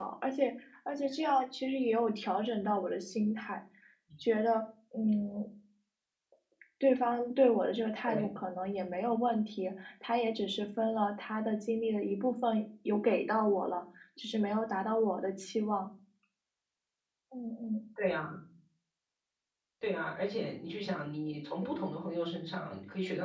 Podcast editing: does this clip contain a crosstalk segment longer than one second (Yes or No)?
No